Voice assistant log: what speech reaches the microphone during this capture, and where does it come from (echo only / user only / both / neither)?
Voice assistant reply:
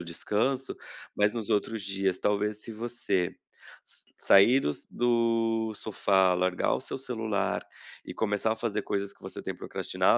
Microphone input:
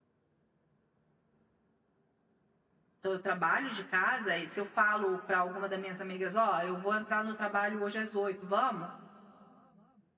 user only